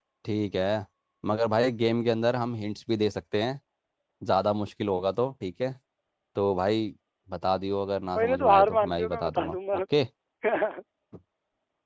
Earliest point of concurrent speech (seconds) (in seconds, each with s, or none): 8.2 s